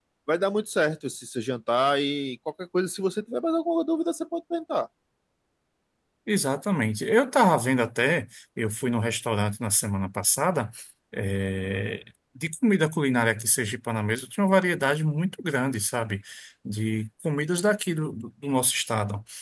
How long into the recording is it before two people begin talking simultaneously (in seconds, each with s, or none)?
none